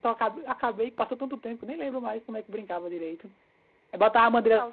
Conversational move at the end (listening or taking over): listening